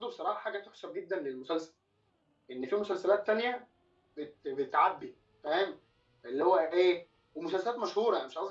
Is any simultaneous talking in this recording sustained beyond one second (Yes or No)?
No